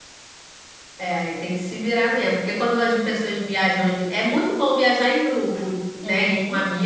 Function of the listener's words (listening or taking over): listening